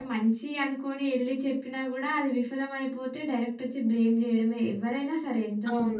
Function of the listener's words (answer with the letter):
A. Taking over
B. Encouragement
A